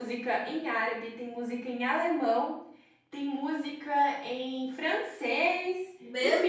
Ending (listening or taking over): listening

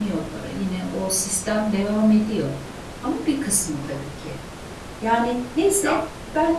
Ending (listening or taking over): listening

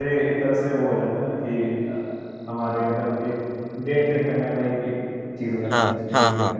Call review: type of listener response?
taking over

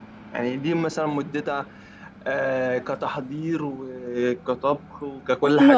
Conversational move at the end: taking over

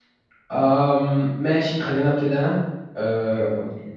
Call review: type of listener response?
listening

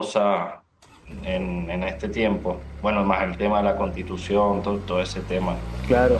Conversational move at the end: taking over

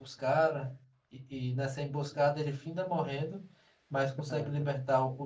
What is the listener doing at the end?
listening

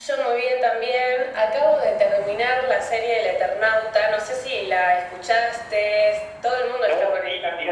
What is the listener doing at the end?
taking over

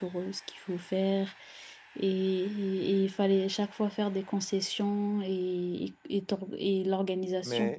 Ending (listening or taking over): taking over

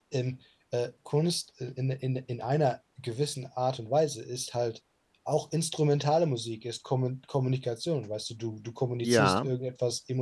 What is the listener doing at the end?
listening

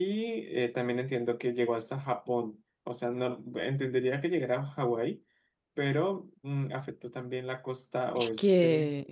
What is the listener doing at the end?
taking over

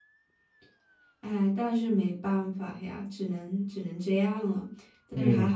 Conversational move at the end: taking over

